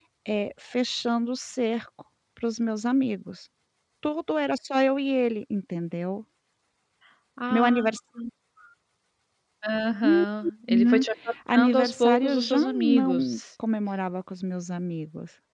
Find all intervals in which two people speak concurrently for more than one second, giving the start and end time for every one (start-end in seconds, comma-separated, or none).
11.5-13.4